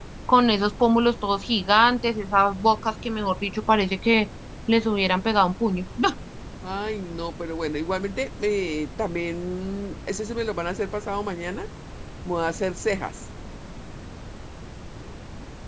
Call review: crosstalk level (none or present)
none